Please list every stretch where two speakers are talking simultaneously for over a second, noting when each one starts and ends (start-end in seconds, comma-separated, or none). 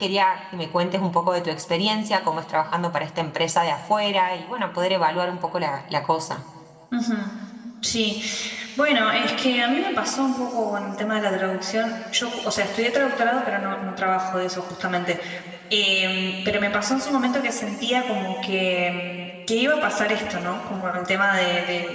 none